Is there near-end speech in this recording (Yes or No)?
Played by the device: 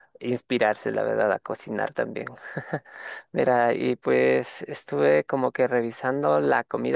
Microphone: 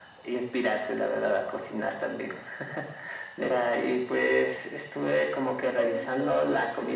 Yes